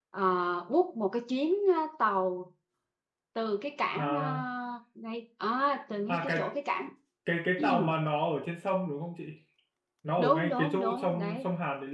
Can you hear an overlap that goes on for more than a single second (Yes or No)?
Yes